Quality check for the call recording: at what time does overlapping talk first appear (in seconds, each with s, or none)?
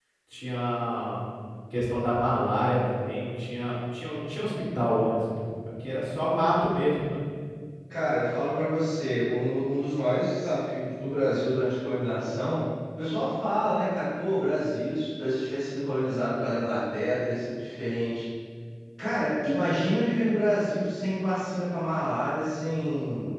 none